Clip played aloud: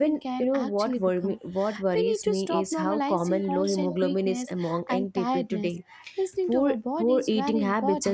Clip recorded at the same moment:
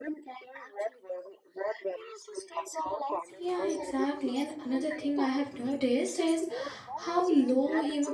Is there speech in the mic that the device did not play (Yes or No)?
Yes